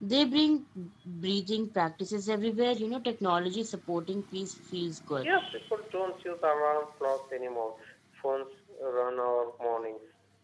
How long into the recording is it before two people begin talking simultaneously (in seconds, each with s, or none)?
none